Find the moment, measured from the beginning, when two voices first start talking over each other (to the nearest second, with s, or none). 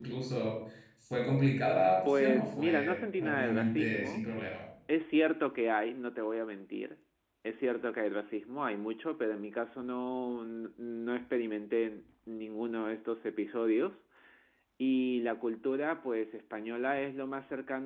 2 s